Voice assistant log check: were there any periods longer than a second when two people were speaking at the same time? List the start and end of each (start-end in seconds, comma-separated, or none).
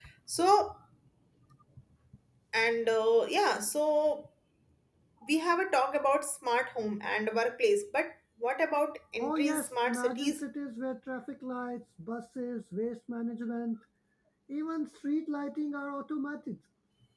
9.2-10.4